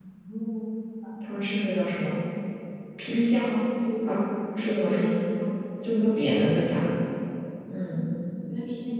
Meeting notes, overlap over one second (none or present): none